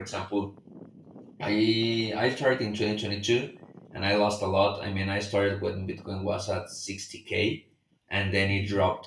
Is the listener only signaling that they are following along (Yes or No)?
Yes